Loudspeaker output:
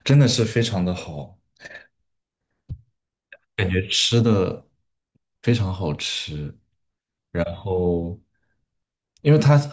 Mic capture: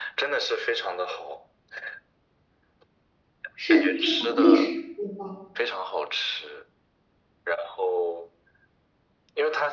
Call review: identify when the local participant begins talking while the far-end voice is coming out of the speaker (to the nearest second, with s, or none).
4 s